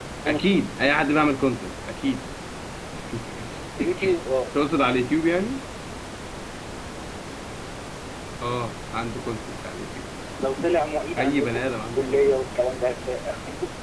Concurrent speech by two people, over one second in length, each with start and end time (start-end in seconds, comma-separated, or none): 11.2-12.6